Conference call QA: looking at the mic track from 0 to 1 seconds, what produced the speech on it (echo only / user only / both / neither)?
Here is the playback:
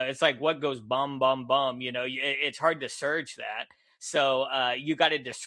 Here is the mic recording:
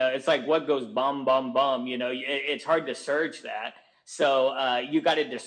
echo only